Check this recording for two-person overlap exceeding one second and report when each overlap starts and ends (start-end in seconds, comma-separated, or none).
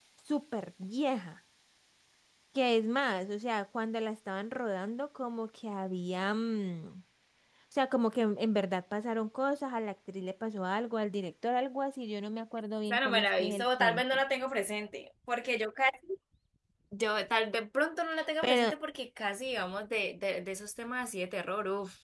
12.9-14.2